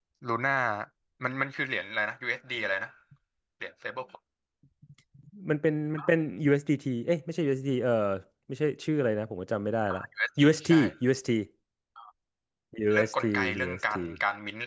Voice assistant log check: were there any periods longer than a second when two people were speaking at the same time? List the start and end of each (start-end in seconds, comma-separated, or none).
12.9-14.2